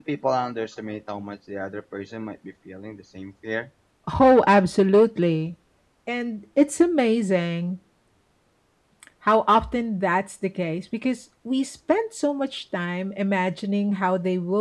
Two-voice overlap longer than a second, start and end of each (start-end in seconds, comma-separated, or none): none